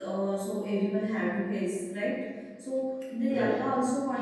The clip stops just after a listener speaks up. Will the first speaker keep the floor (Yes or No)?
Yes